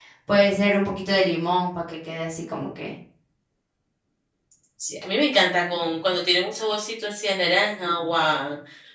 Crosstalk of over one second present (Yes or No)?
No